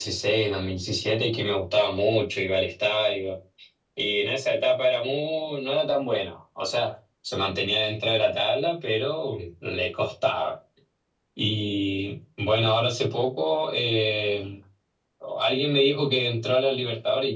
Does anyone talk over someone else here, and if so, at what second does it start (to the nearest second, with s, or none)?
none